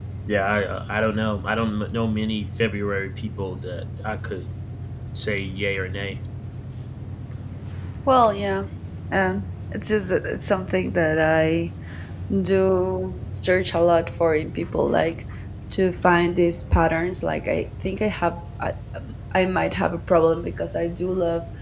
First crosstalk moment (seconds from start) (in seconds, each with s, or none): none